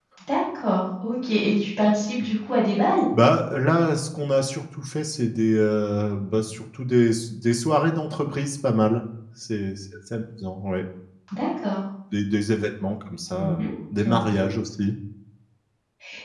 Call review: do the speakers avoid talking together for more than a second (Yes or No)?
Yes